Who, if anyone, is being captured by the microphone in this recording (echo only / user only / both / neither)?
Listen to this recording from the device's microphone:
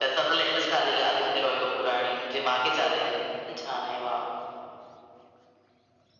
echo only